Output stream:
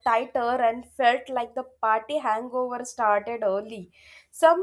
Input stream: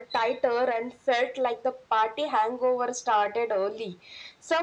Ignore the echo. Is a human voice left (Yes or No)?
No